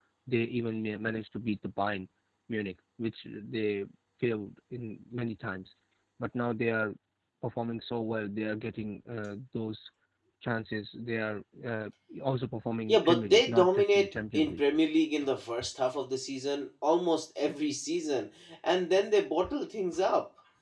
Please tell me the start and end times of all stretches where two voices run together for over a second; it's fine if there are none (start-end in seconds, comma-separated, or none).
12.9-14.6